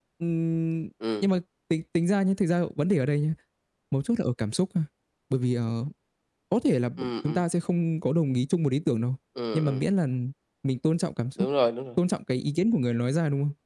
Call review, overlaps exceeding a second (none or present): none